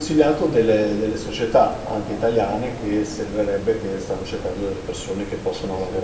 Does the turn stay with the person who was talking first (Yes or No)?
Yes